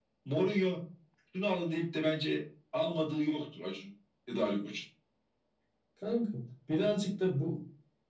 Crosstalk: none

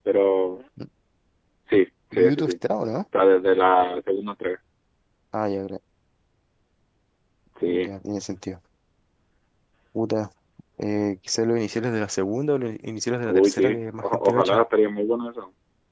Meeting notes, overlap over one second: present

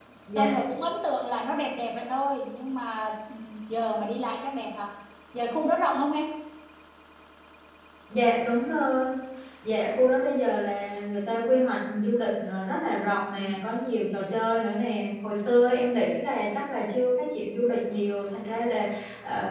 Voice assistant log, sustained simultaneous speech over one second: none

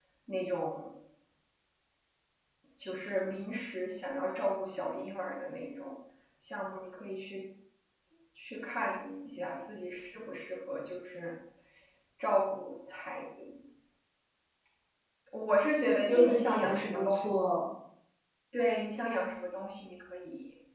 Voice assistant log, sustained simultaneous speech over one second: present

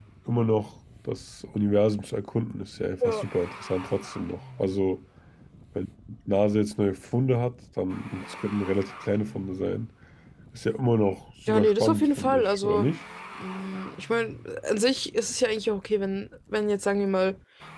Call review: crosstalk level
present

